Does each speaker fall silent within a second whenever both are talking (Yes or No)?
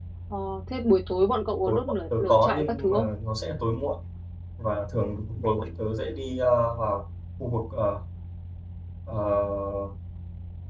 No